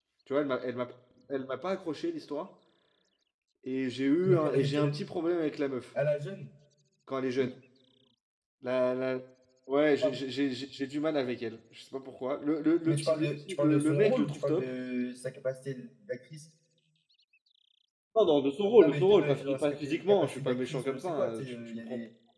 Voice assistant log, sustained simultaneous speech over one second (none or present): present